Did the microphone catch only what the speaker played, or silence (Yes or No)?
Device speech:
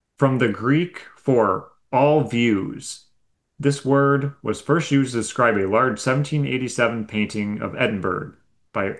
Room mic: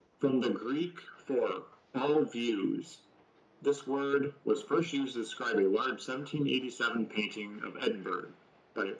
Yes